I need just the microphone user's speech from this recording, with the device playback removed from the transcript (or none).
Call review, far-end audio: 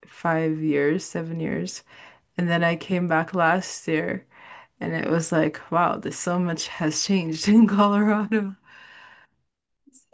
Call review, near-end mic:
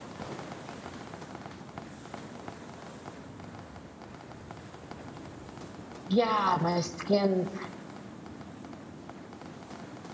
yeah, my skin's